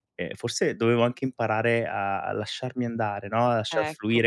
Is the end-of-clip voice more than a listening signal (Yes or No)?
No